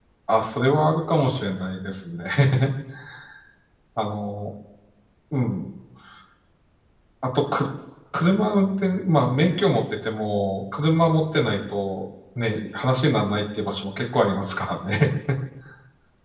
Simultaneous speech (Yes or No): No